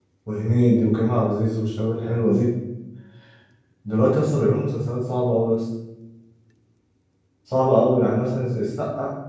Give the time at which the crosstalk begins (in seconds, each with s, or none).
none